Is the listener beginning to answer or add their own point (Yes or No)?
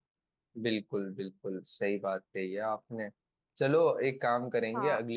No